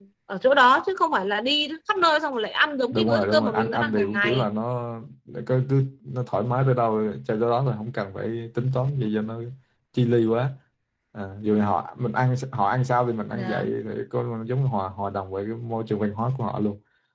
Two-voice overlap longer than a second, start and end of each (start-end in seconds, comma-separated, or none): 2.9-4.5